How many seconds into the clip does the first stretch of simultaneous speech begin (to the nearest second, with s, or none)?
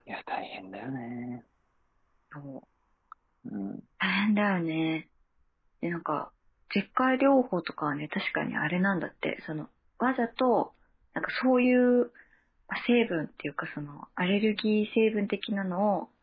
none